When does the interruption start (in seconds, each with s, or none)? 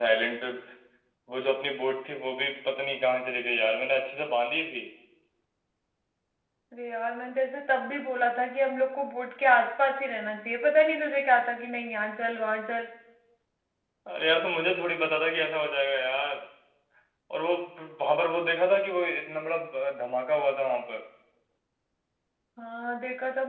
none